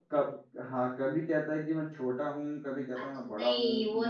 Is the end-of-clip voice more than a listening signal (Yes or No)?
Yes